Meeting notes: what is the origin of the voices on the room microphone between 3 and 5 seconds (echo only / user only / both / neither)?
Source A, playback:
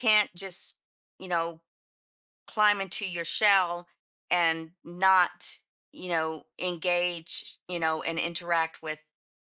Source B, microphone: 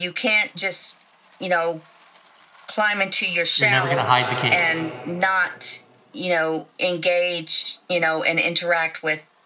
both